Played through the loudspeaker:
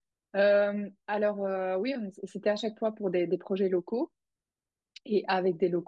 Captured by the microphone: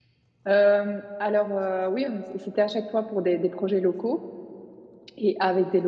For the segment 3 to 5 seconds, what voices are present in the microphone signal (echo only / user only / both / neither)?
echo only